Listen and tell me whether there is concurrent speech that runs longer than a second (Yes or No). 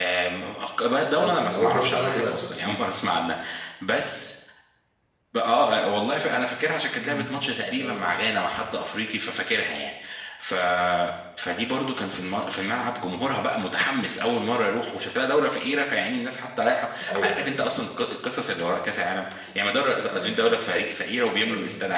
Yes